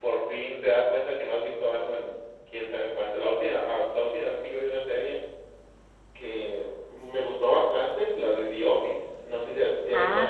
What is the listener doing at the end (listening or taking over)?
taking over